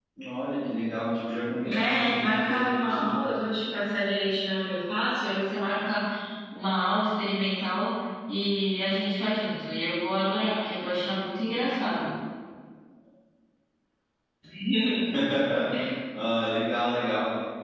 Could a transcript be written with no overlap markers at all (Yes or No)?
No